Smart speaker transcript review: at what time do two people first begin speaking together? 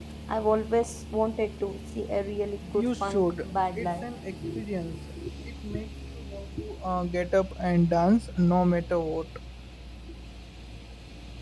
2.7 s

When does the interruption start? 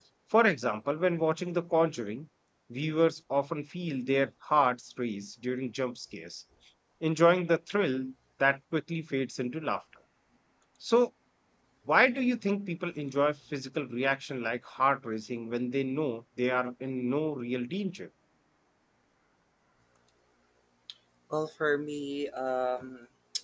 none

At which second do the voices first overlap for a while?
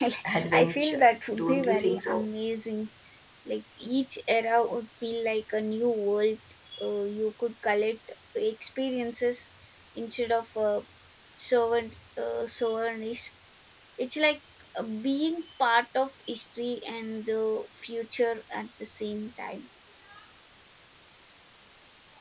0.5 s

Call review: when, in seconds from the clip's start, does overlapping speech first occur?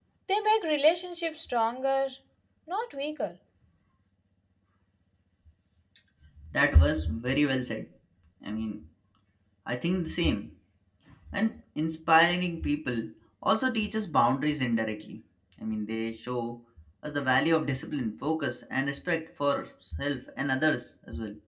none

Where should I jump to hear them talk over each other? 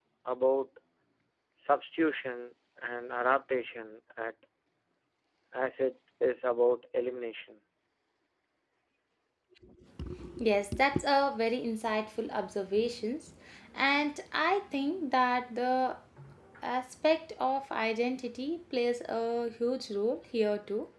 none

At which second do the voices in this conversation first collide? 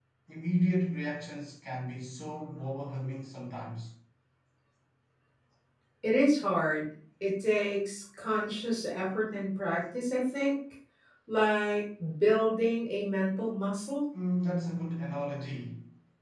none

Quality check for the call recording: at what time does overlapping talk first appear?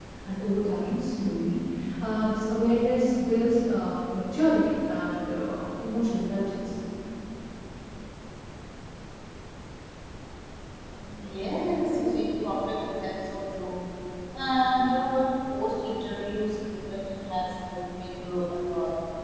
none

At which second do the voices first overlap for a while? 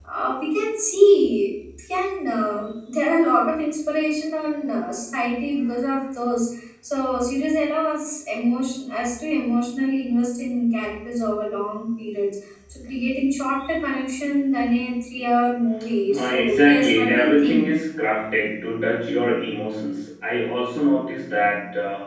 16.1 s

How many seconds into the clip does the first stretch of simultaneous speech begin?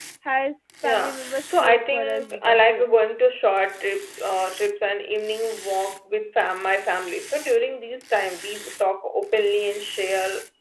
0.8 s

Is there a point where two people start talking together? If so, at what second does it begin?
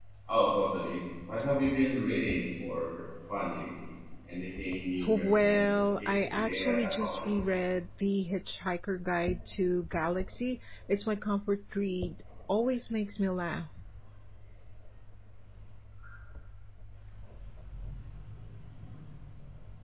5.0 s

